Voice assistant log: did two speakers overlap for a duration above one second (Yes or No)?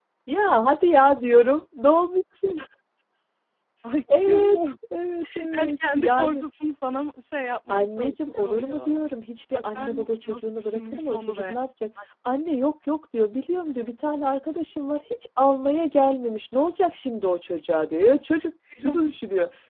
Yes